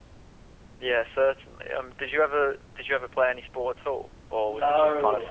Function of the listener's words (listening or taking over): taking over